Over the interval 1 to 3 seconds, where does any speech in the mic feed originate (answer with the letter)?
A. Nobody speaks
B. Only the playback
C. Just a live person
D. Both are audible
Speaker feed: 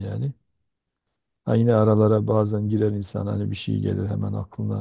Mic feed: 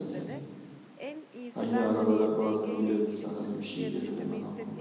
D